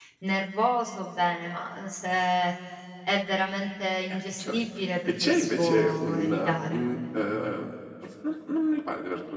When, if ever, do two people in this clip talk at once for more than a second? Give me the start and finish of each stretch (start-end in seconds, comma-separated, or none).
5.2-6.8